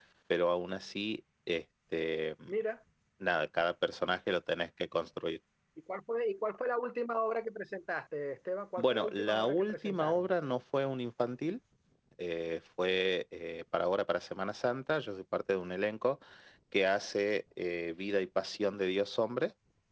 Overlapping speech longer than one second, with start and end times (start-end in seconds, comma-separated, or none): 8.8-10.3